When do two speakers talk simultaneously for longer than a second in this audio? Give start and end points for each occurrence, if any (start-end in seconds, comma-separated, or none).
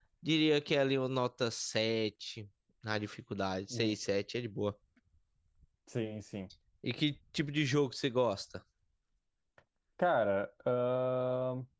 none